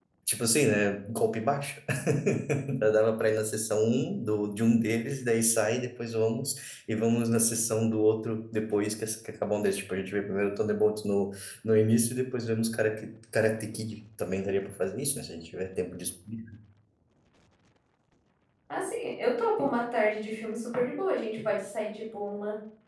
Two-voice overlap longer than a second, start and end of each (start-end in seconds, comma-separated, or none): none